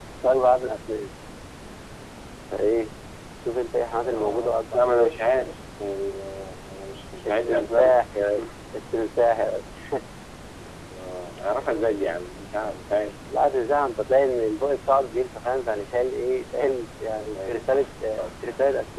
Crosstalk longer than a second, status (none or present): present